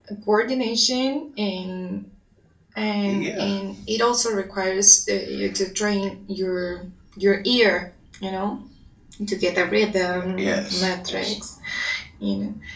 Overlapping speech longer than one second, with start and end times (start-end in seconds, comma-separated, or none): 10.2-11.4